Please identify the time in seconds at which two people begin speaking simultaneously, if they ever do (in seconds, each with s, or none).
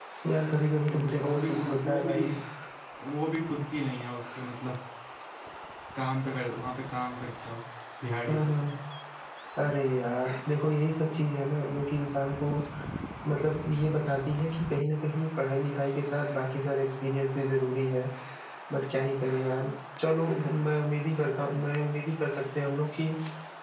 0.9 s